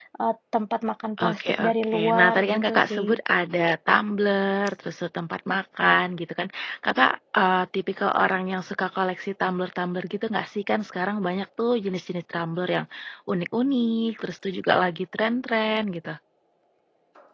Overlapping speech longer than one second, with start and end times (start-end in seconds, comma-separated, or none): 1.2-3.2